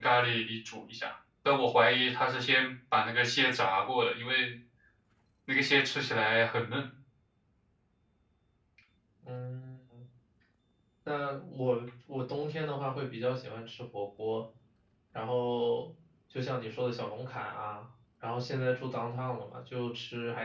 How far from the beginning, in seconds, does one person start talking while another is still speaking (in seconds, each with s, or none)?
none